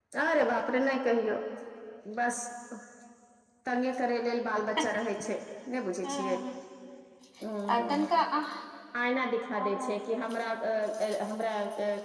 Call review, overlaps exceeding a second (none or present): none